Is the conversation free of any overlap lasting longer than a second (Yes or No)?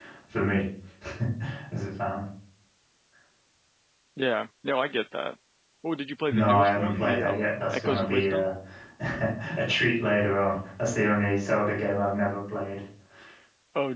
No